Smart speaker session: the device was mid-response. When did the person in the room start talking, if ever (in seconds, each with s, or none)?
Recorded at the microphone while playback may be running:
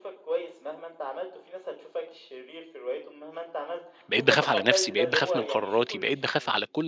4.1 s